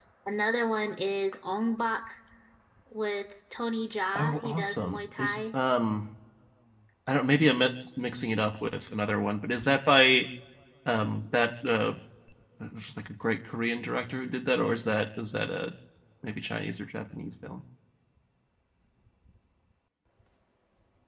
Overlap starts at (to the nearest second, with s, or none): 4 s